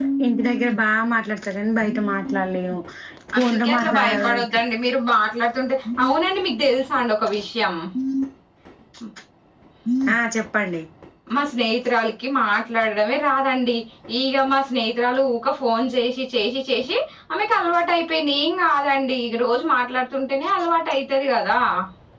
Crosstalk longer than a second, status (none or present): present